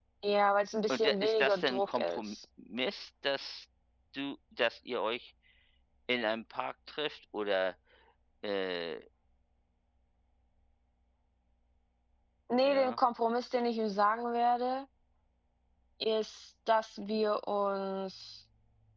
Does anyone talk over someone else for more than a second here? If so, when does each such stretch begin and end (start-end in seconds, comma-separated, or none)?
0.9-2.4